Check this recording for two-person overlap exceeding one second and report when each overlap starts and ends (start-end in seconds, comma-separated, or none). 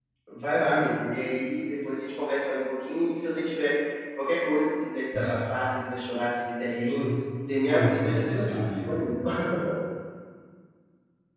7.7-9.0